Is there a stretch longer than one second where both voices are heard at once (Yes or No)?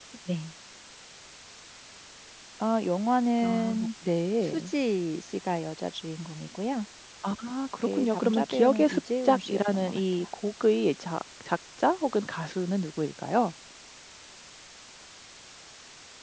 Yes